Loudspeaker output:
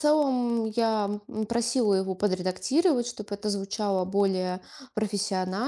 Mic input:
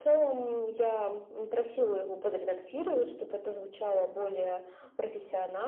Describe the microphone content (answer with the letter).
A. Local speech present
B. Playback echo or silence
B